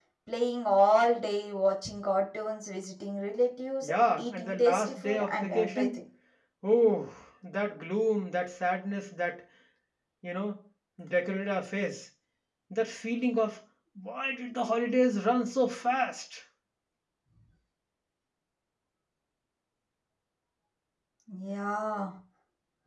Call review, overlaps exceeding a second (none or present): present